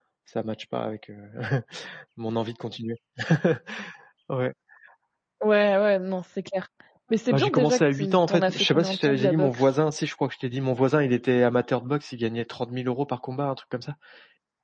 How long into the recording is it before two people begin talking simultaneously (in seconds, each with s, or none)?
7.3 s